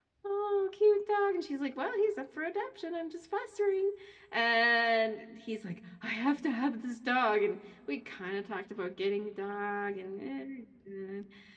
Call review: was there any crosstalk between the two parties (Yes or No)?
No